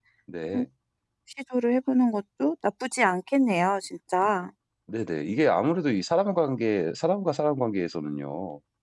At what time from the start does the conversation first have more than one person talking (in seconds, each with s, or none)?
none